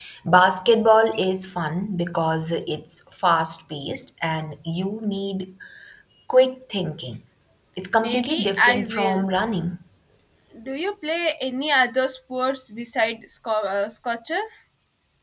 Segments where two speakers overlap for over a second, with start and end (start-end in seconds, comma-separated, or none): 8.0-9.2